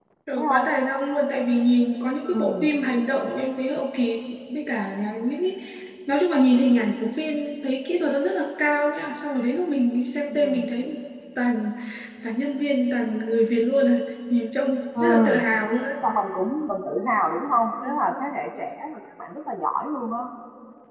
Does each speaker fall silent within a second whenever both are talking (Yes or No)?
Yes